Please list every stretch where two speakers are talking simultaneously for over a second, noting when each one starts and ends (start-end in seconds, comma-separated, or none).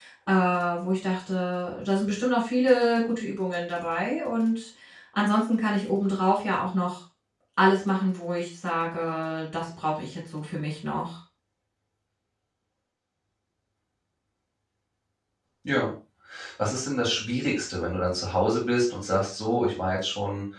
none